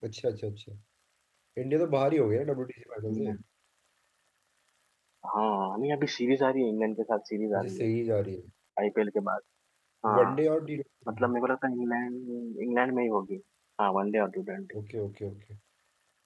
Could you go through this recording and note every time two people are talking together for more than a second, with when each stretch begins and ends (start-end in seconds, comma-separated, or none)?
none